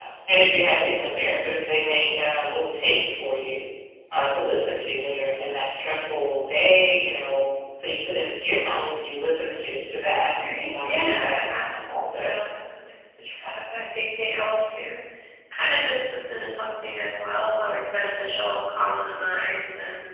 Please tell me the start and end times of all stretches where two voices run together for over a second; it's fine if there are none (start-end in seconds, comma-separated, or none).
10.4-12.3